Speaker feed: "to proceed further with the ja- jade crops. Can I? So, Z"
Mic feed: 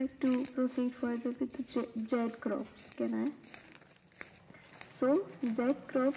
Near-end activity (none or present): none